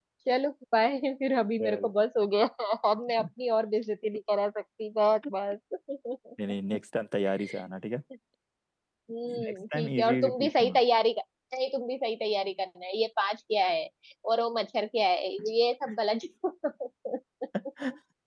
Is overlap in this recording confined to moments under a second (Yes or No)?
No